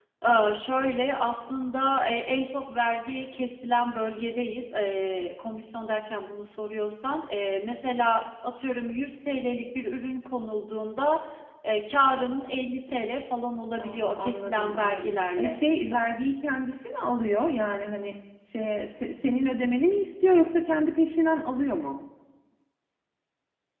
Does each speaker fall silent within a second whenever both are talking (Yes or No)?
No